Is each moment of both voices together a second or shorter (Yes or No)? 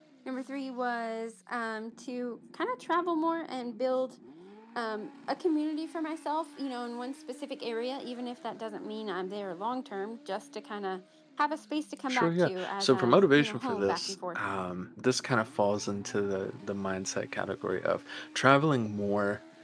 No